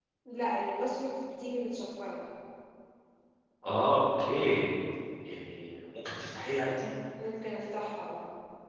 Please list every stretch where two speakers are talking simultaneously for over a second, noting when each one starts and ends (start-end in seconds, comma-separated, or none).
none